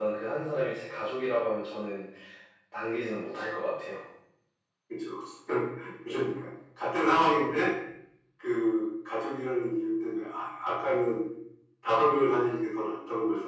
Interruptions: none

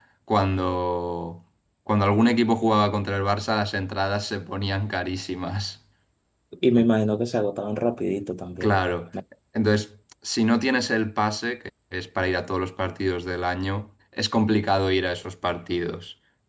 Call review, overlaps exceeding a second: none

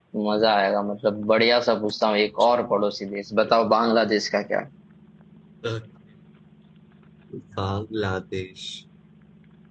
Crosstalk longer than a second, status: none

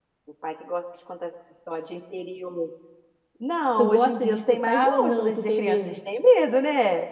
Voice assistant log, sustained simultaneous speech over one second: present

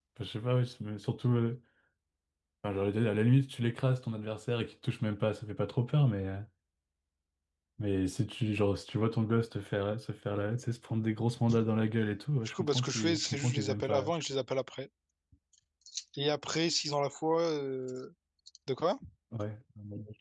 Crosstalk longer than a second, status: present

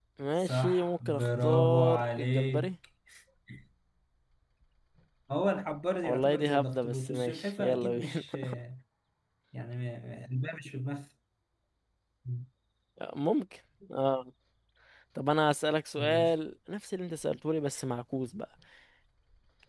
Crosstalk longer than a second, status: present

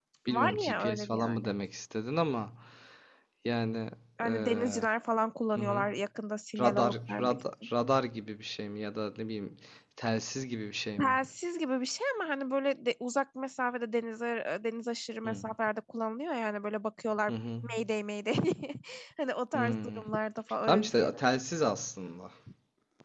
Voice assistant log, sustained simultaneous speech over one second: present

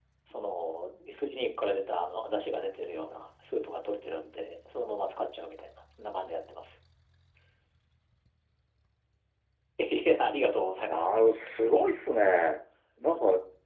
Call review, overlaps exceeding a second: none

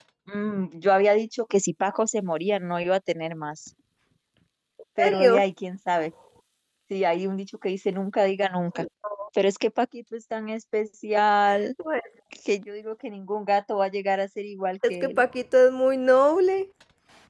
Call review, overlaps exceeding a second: none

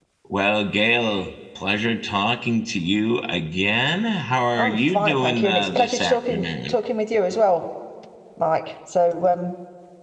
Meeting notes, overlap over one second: present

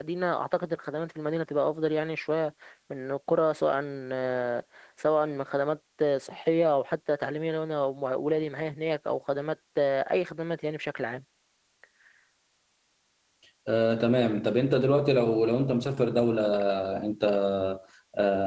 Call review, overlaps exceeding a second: none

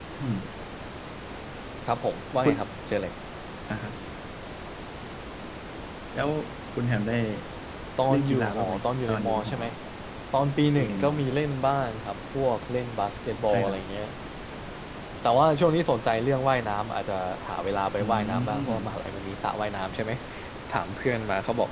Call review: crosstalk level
present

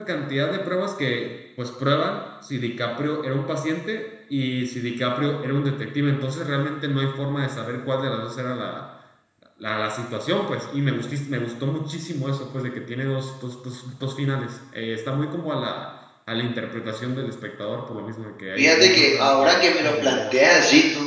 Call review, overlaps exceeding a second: present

